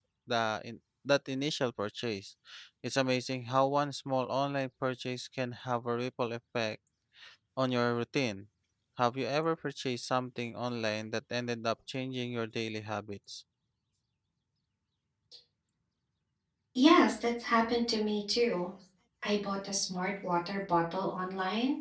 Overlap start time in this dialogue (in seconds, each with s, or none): none